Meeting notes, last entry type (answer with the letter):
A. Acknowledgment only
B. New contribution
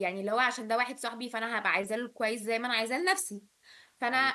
A